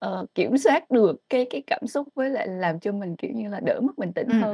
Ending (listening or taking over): taking over